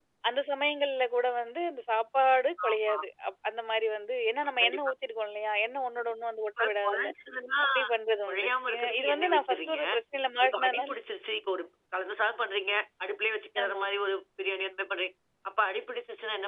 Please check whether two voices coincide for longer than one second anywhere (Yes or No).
Yes